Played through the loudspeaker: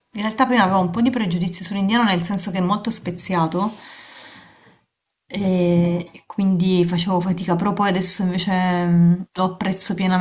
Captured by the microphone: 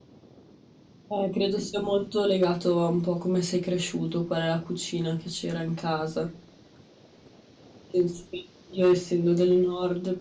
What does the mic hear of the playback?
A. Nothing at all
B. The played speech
A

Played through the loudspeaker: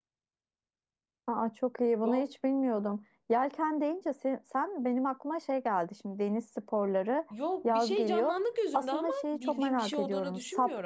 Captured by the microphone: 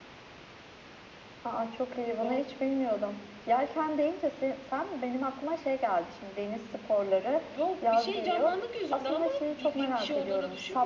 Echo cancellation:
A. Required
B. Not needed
A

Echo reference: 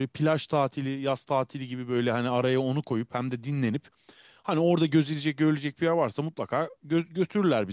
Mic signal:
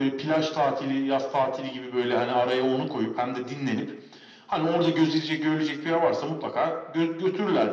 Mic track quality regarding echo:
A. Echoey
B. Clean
A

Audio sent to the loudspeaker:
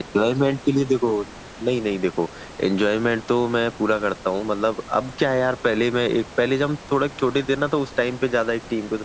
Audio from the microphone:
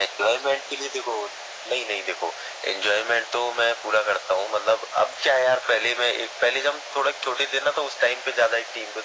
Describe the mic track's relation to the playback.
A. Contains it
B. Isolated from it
A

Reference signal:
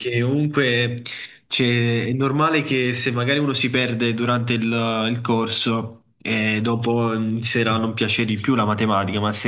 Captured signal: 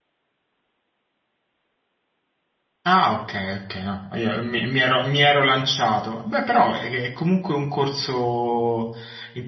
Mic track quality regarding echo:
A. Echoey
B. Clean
B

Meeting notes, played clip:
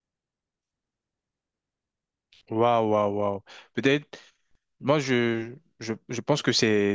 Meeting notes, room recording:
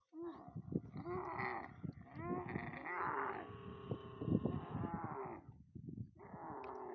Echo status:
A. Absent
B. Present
A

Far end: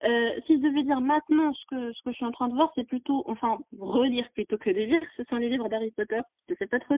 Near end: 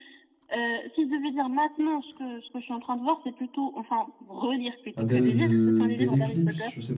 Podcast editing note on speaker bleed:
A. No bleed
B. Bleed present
B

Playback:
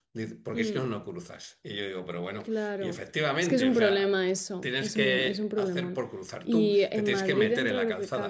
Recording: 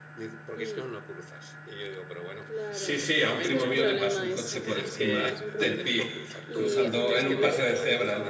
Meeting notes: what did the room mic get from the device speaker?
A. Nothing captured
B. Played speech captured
B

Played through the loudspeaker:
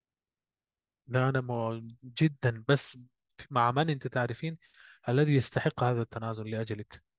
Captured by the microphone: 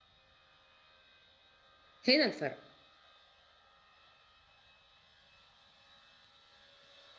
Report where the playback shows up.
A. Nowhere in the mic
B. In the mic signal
A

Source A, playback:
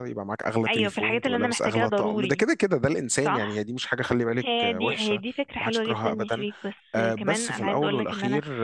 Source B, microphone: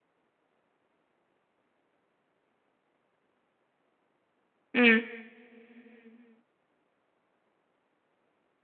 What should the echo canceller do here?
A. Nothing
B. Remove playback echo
A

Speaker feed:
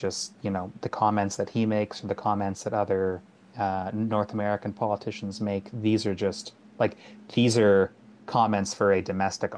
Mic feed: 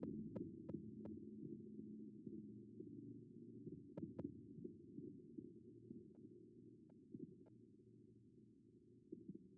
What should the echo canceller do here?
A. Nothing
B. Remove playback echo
A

